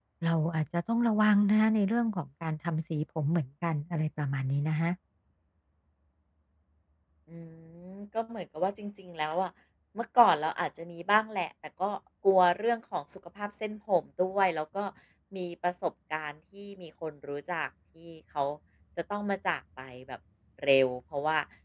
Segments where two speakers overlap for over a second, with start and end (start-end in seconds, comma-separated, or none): none